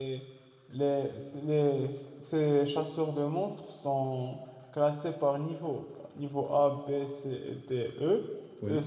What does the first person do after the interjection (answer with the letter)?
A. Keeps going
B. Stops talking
A